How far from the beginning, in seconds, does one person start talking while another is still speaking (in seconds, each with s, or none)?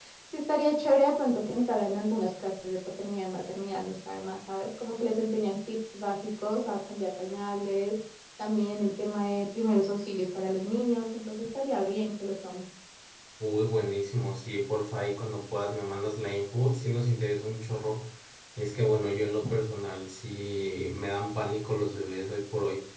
none